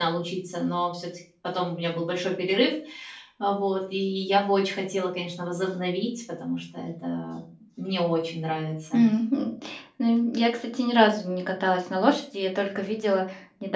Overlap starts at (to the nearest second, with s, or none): none